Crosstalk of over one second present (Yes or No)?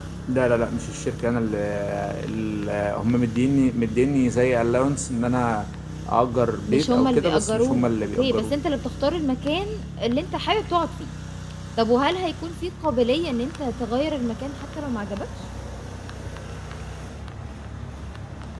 Yes